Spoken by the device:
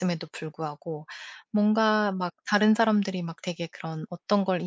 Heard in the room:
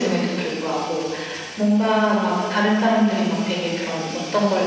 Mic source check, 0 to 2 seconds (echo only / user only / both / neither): echo only